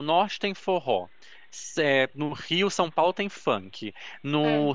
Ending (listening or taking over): listening